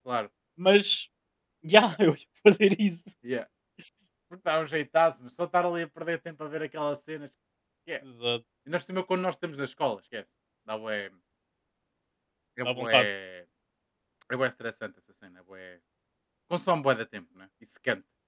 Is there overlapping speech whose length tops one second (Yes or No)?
No